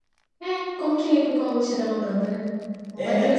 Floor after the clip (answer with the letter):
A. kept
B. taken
B